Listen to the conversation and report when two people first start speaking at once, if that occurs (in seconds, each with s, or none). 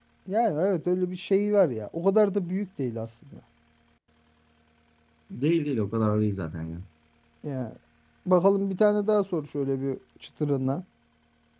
none